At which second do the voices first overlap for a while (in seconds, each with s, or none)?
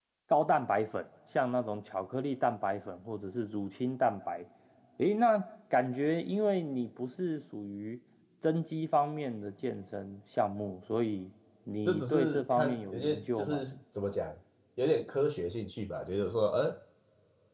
11.8 s